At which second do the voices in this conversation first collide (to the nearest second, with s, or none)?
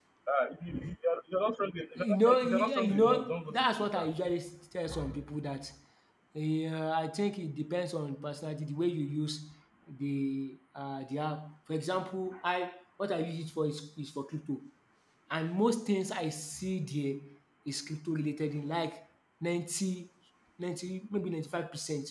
2 s